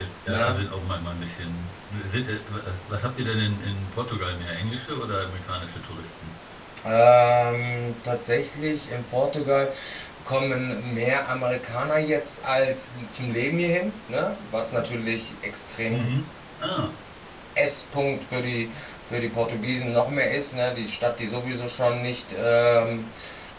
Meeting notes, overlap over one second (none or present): none